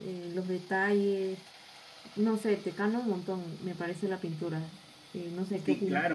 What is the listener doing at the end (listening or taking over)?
taking over